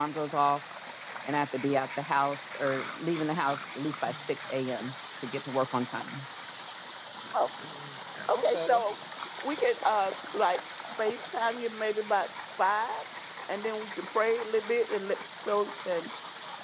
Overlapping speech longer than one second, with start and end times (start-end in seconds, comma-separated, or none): none